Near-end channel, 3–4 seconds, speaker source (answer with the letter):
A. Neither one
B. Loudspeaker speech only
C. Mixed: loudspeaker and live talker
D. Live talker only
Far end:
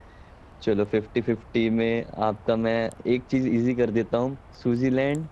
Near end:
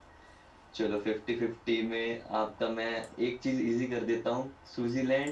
B